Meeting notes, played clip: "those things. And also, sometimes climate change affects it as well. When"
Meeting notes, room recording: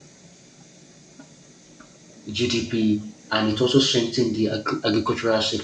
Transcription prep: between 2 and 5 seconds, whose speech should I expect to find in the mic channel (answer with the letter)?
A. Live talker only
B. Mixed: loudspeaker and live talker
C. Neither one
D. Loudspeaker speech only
A